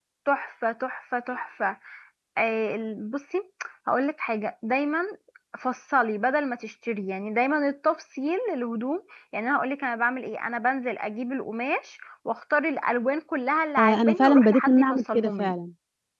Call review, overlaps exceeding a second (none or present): present